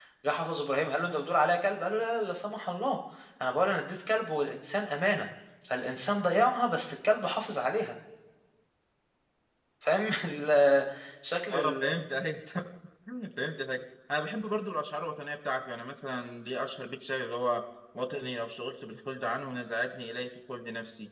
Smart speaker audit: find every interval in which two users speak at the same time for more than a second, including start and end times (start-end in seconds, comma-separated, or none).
none